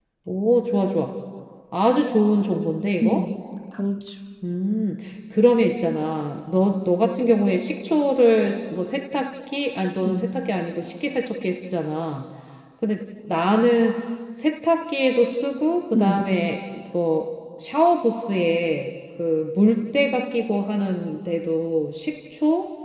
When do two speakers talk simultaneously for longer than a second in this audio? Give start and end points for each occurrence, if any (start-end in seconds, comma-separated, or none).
none